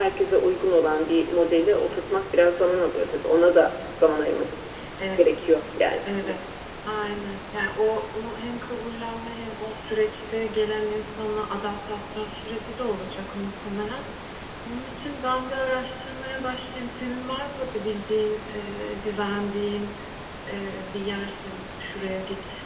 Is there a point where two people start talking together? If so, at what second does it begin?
none

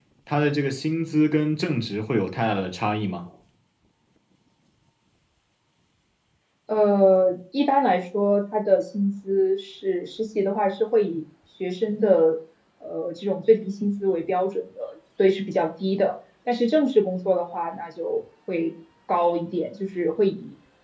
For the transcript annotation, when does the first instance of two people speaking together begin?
none

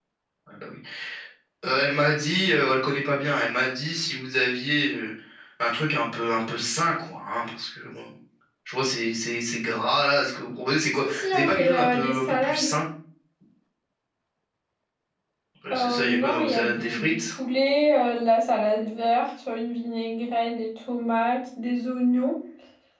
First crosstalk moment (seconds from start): 11 s

